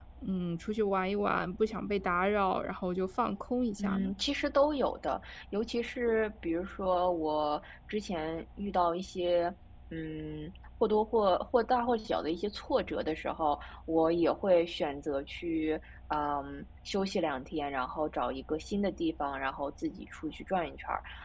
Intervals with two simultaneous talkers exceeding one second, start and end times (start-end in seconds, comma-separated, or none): none